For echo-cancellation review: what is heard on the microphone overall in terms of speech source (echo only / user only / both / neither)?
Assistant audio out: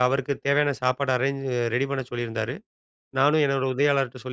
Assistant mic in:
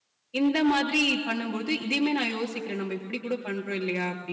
user only